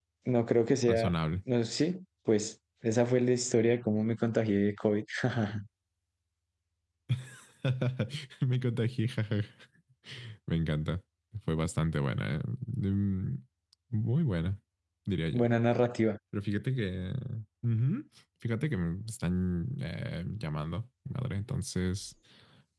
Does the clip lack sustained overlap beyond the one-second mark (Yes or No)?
Yes